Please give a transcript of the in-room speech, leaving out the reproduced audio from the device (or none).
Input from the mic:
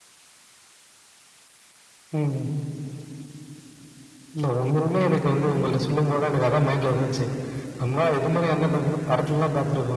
none